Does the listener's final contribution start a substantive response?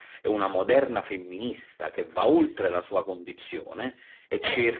No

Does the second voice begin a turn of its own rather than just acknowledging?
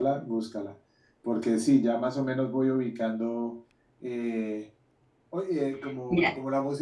No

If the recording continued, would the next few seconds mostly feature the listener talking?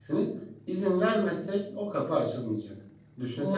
No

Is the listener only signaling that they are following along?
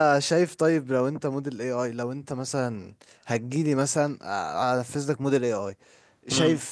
Yes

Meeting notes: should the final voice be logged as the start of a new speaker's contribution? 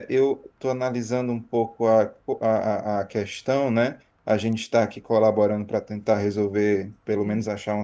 No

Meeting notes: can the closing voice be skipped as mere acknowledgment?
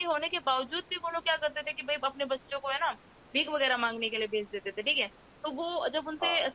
Yes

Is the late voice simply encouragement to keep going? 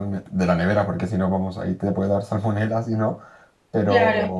Yes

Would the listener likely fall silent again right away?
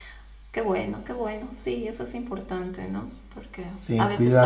Yes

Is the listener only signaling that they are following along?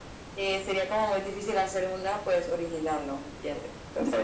No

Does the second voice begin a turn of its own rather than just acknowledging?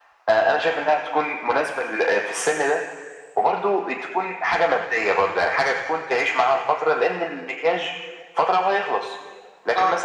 No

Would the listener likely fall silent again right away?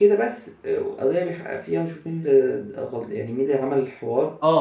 No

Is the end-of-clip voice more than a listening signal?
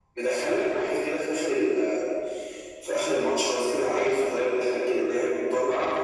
Yes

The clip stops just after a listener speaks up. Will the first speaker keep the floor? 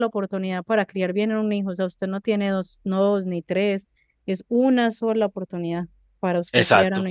No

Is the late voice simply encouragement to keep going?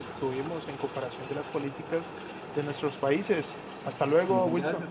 No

